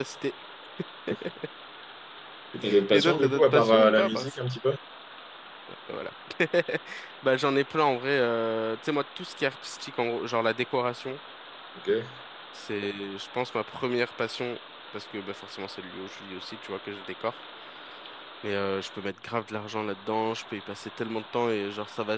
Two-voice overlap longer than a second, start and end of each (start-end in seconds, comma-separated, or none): 2.9-4.3